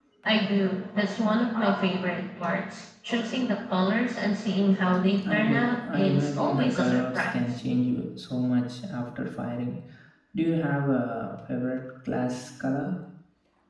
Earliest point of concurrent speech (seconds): 5.2 s

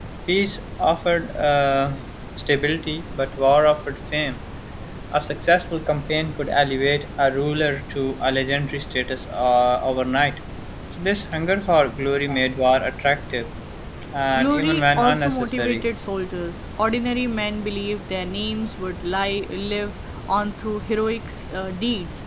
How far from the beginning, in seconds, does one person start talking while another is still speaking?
14.3 s

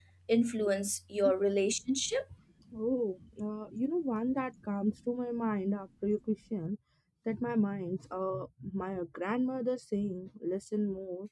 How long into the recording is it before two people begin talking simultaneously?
none

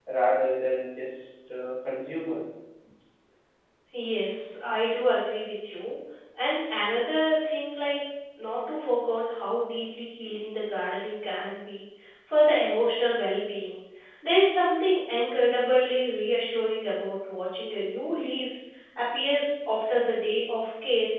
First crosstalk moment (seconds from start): none

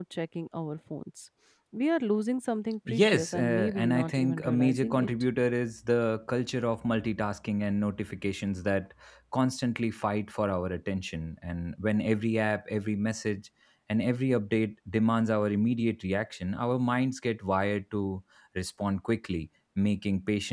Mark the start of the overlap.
2.9 s

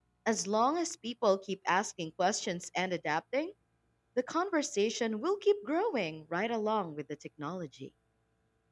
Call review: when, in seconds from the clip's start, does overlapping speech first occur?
none

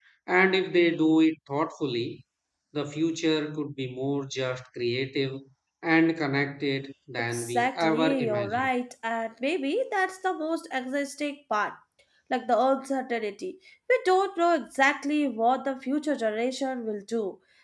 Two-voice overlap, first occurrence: 7.3 s

